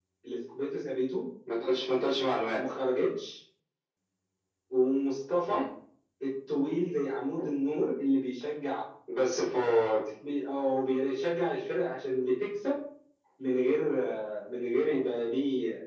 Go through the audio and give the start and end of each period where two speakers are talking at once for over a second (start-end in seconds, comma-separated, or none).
none